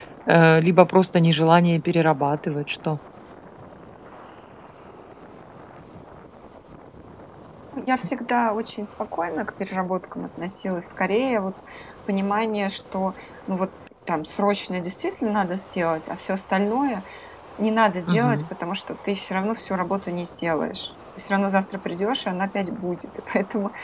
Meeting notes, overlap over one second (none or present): none